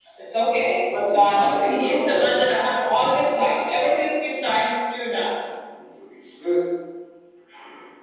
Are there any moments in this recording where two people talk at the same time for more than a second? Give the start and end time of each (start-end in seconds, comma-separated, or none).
0.9-2.4